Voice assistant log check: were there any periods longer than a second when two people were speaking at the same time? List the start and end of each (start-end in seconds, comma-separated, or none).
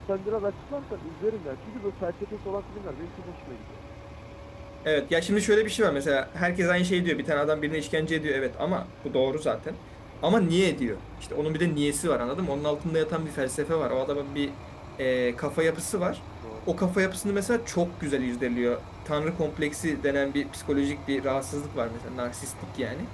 none